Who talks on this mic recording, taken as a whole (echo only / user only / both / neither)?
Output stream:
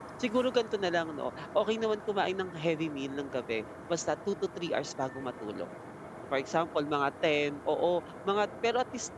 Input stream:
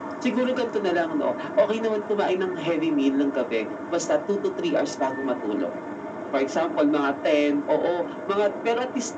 echo only